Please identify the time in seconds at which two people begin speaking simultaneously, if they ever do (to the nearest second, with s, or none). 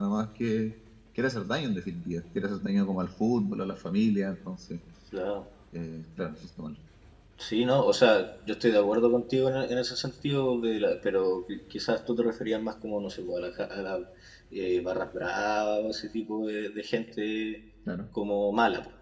none